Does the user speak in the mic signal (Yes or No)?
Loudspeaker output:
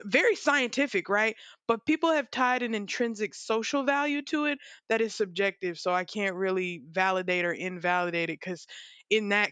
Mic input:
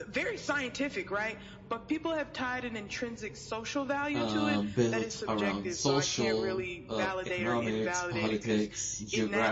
Yes